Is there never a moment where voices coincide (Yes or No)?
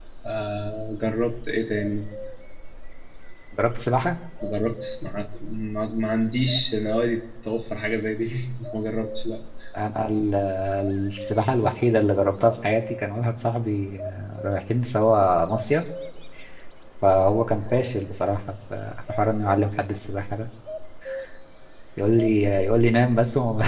Yes